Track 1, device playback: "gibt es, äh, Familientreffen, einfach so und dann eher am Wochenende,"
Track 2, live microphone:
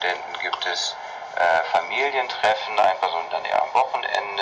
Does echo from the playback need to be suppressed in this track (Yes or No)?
Yes